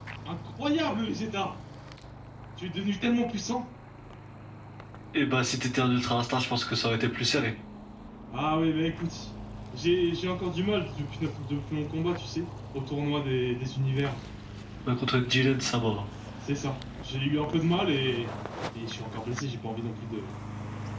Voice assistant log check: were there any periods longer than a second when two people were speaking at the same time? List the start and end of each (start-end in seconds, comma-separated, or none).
none